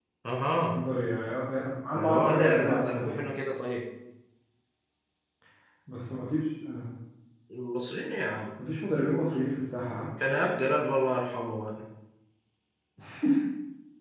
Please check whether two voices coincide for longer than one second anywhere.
Yes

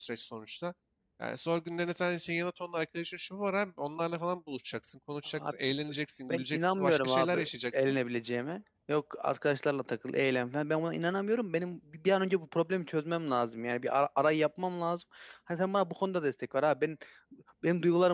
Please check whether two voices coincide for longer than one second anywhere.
Yes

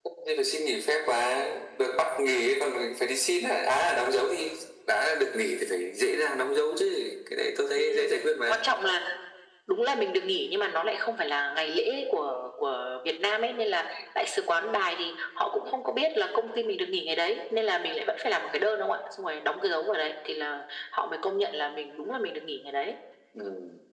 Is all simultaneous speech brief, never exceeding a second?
Yes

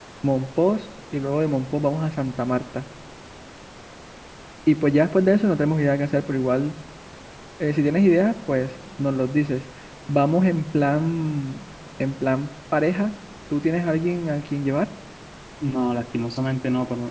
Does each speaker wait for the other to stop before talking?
Yes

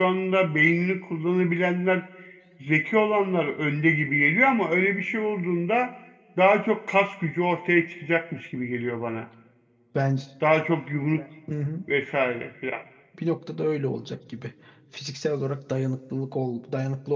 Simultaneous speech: No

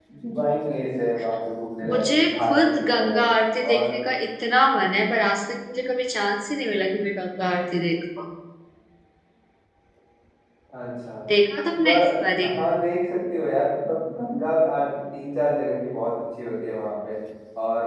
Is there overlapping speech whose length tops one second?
Yes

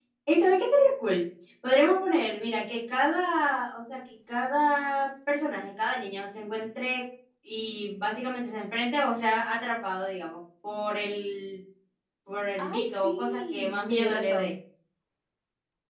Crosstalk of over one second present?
Yes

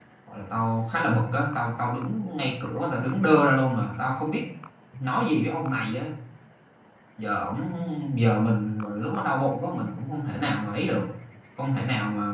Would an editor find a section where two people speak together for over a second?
No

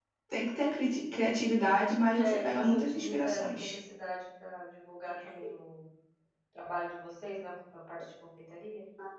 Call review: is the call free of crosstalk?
No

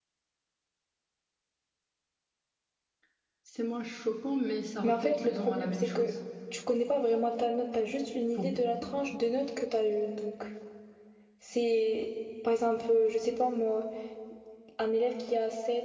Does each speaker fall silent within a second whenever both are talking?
No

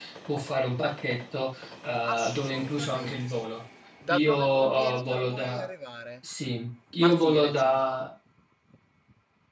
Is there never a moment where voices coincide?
No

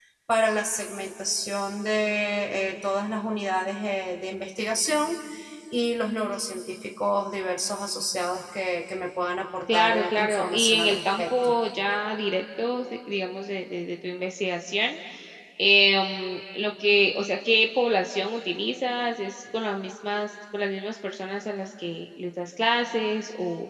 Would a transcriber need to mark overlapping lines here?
Yes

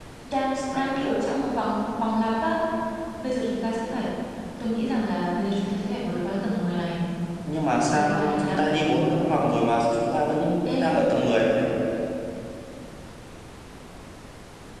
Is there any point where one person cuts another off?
Yes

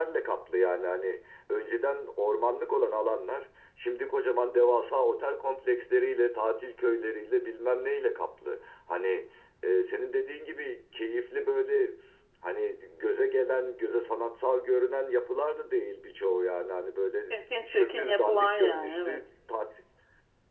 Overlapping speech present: Yes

